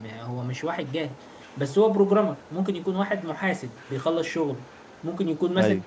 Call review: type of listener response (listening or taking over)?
listening